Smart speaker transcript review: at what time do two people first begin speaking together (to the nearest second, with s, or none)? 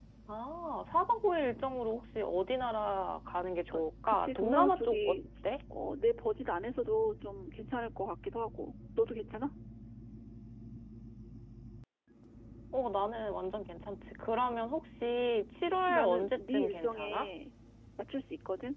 4 s